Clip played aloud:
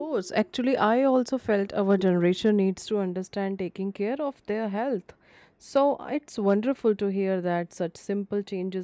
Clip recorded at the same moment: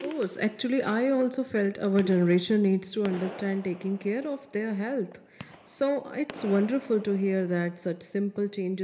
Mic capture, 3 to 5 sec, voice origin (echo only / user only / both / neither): echo only